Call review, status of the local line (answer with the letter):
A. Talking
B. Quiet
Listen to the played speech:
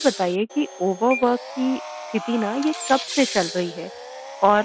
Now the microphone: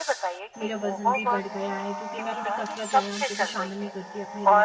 A